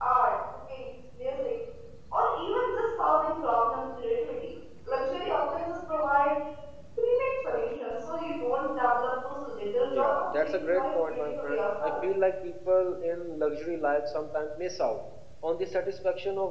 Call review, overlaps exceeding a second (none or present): present